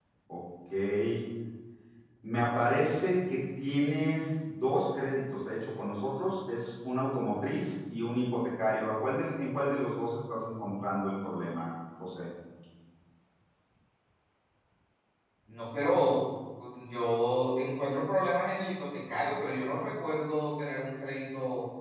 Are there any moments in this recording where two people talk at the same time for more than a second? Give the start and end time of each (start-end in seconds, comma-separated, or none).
none